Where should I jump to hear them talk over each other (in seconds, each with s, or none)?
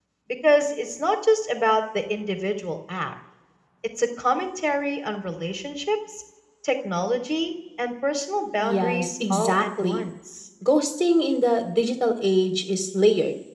8.6 s